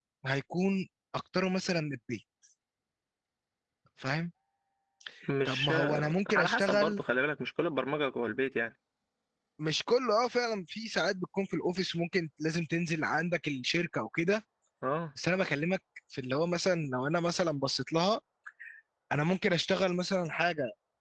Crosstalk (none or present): present